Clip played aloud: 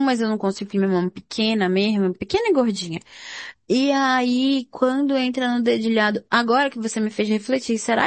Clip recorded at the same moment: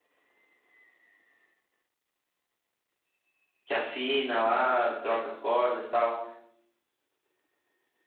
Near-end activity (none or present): present